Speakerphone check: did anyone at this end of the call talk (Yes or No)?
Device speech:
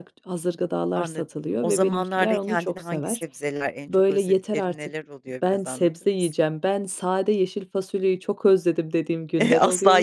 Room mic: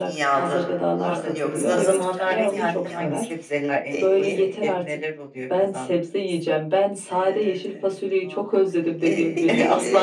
Yes